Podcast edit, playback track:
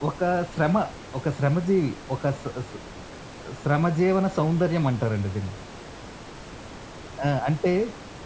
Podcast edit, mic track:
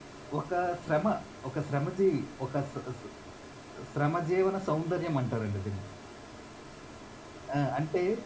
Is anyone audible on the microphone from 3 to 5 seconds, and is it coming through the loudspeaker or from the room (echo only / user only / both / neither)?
echo only